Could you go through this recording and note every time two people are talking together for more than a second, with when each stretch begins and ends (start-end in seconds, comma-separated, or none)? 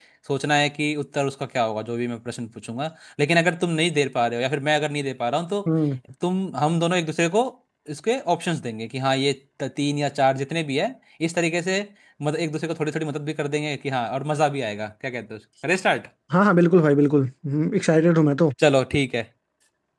none